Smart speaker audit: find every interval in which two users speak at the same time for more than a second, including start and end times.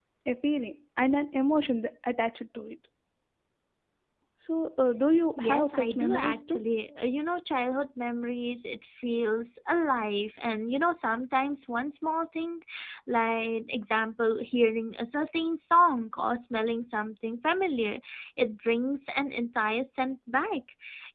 5.4-6.6

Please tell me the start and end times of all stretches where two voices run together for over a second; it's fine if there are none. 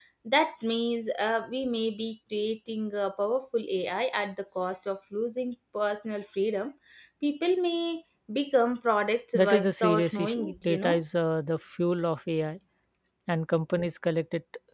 9.3-11.0

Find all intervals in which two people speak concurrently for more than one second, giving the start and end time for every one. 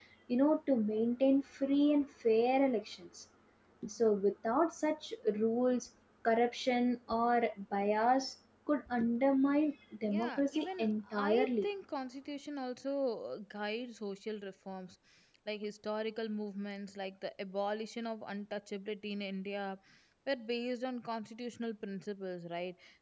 10.1-11.7

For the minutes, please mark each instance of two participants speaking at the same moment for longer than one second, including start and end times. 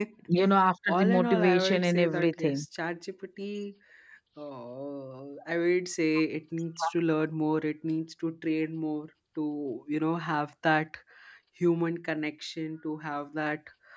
0.9-2.6

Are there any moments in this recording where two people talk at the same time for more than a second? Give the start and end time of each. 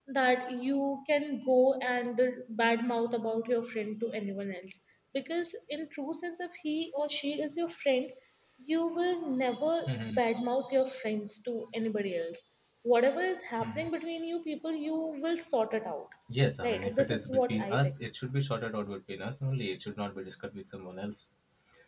16.6-17.9

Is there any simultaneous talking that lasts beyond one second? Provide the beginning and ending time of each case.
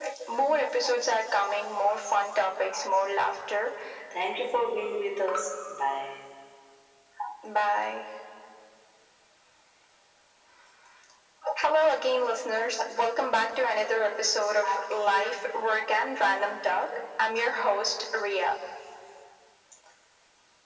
none

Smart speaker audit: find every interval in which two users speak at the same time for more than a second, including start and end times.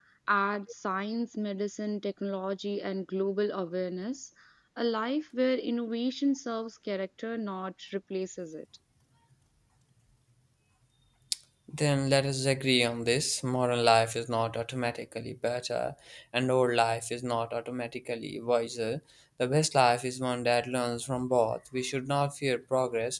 none

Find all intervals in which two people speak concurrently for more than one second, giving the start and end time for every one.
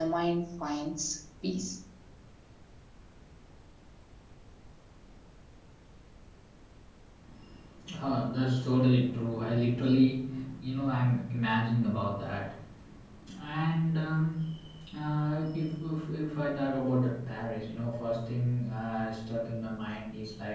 none

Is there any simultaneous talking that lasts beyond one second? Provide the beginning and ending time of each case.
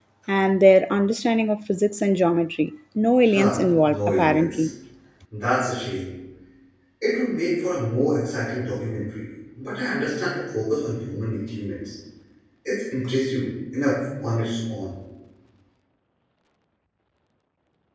3.3-4.7

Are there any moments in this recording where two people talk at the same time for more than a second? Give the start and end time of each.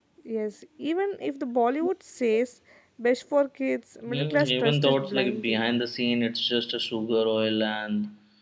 4.1-5.6

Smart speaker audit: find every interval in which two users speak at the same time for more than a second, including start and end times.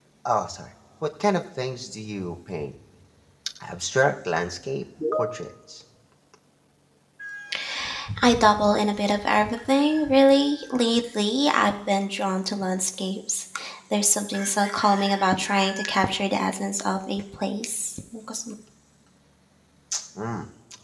none

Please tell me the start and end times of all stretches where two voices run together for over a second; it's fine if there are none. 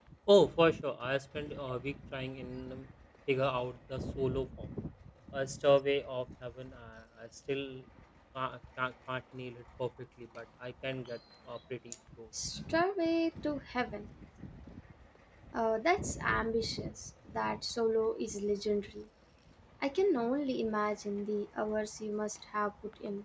none

